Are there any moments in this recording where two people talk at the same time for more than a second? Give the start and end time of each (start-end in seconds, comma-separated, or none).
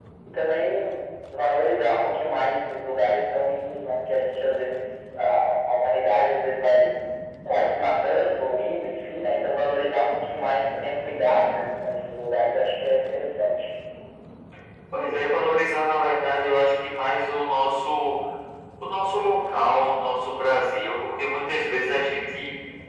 none